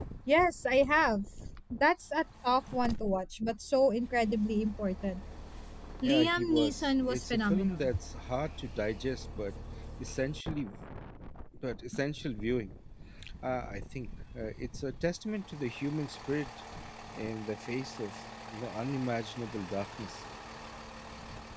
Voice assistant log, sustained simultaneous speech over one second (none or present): present